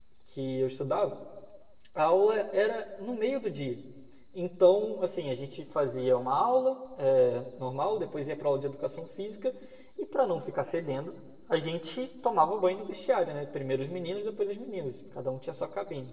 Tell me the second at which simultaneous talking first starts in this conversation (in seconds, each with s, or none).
none